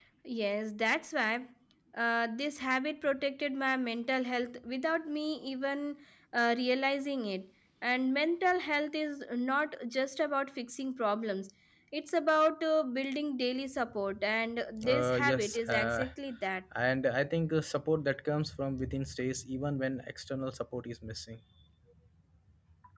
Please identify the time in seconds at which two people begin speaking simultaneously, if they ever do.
14.8 s

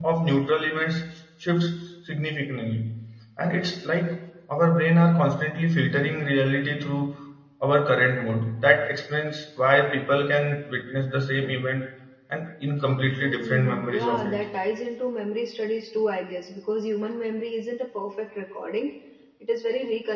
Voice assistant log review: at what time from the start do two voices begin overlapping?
13.2 s

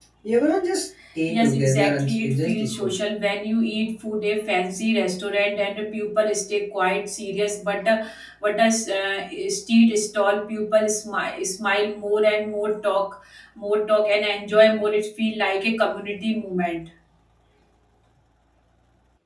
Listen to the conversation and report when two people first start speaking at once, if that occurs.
1.3 s

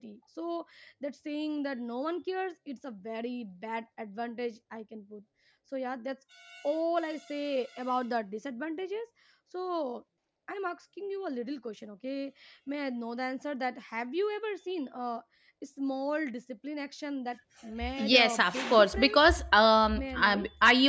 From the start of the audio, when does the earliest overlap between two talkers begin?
17.9 s

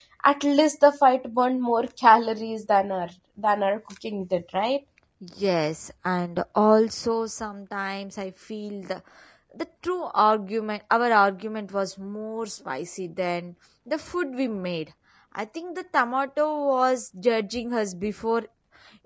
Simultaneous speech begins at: none

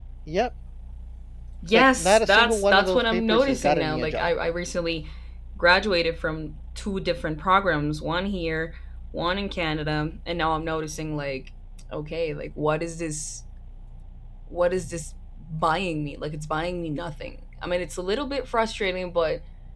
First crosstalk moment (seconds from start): 1.7 s

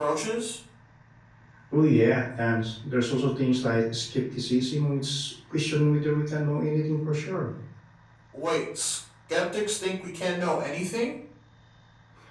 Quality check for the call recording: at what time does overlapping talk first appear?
none

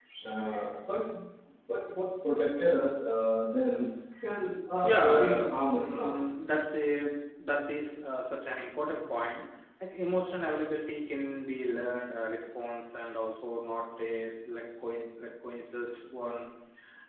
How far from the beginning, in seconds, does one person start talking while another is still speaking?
4.7 s

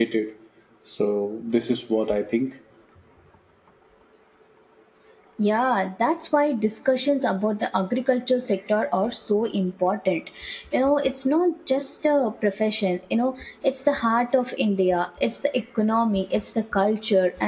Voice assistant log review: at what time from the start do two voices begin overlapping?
none

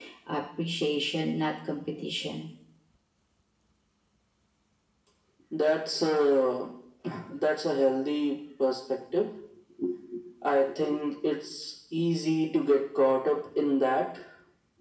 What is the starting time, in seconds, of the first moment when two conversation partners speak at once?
none

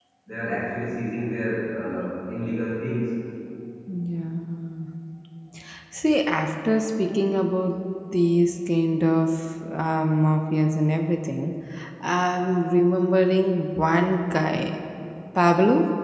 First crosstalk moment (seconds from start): none

